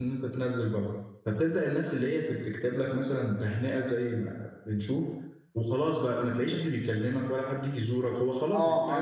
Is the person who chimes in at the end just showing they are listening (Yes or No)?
No